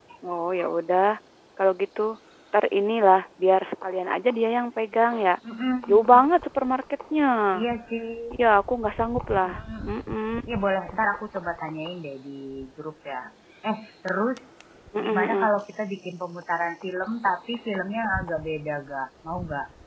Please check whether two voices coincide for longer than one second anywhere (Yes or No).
No